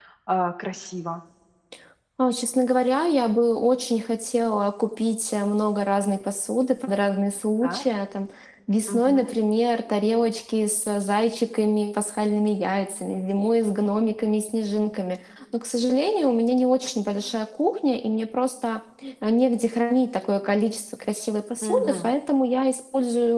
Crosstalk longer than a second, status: none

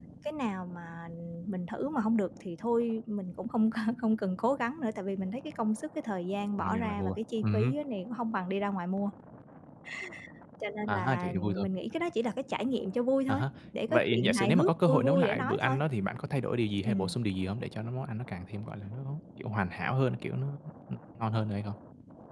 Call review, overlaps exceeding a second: present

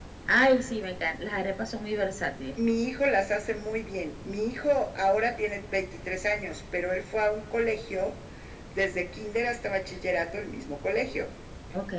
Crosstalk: none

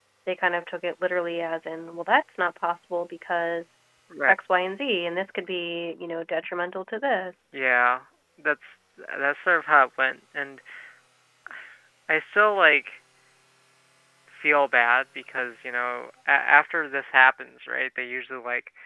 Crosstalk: none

